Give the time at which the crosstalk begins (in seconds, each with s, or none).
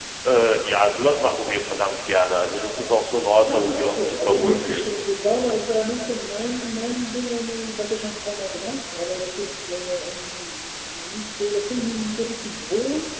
3.5 s